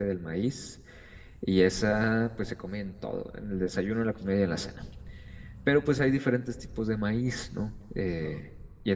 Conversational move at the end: listening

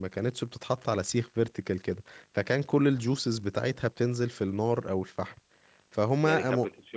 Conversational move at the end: taking over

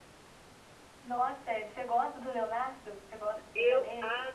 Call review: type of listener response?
taking over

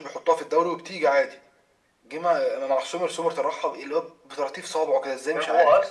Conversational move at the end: taking over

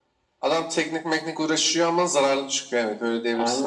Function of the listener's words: taking over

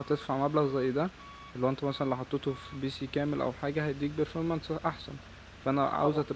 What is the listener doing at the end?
listening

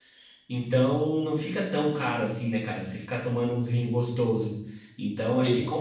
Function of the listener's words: listening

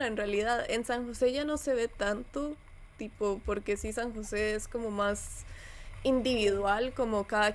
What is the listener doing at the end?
listening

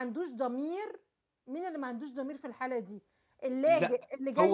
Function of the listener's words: taking over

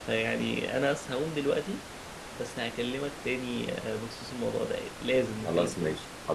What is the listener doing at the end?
taking over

